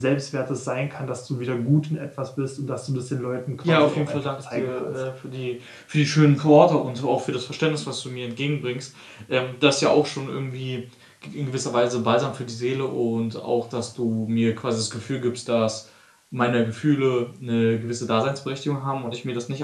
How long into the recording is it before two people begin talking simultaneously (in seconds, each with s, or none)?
3.6 s